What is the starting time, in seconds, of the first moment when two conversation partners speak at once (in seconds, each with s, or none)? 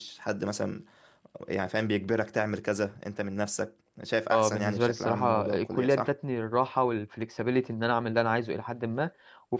4.3 s